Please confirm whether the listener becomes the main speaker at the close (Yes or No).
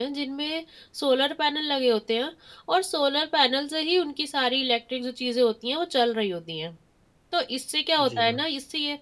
No